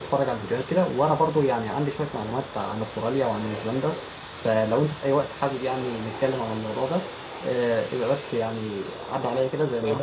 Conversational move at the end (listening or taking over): taking over